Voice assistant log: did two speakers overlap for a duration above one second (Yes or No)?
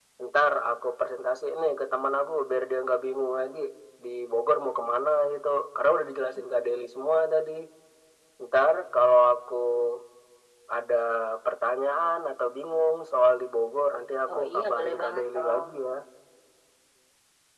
Yes